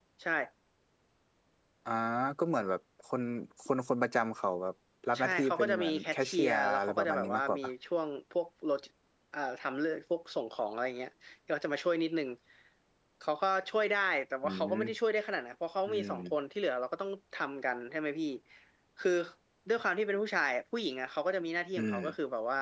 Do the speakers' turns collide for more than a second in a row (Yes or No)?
Yes